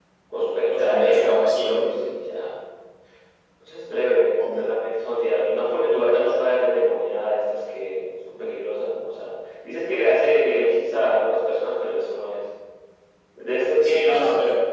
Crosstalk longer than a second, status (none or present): present